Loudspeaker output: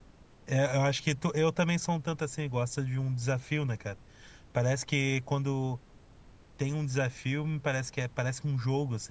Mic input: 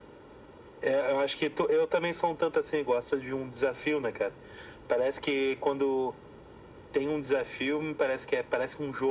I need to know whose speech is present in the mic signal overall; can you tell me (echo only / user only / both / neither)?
echo only